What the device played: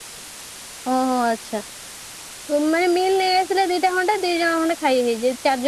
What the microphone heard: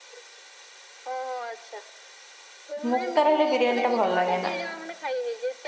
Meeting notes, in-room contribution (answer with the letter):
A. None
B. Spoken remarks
B